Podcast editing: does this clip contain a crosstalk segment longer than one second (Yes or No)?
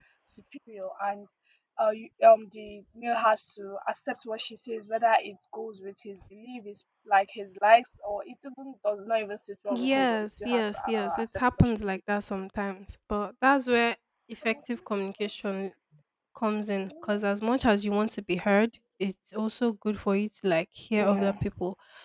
Yes